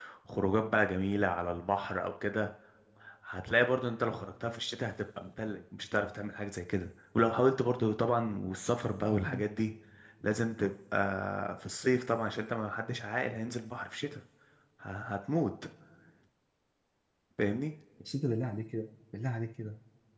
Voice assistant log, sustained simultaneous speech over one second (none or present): none